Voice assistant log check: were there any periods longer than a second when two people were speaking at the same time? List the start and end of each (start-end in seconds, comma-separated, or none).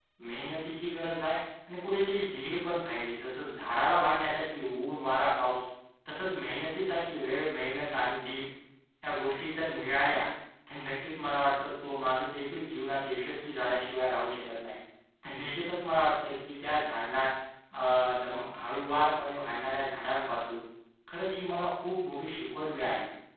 none